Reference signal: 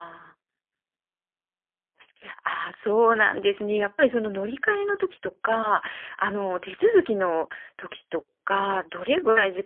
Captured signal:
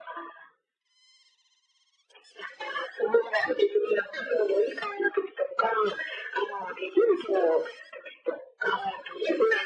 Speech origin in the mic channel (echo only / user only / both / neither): echo only